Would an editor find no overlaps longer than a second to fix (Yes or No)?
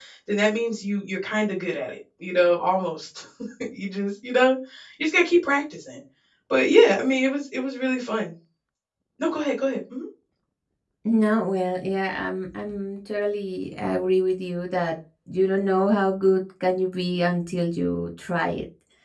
Yes